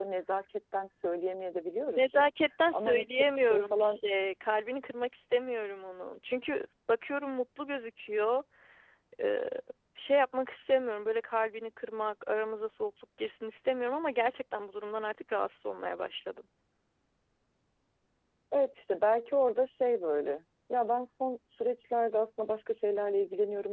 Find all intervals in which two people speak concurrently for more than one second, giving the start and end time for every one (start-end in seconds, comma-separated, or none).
2.7-4.0